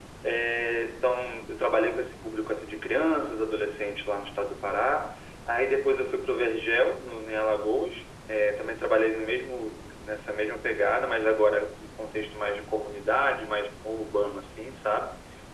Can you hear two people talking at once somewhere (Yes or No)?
No